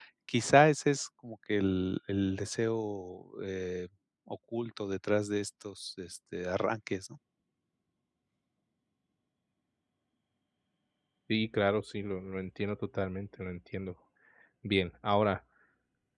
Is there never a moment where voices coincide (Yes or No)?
Yes